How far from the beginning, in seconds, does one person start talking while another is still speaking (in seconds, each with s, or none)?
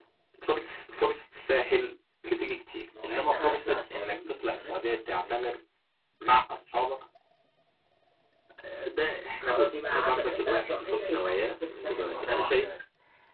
3.0 s